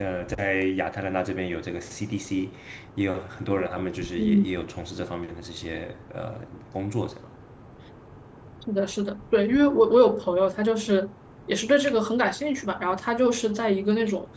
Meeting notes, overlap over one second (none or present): none